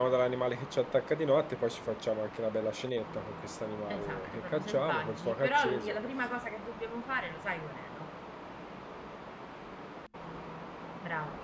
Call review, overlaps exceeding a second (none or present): present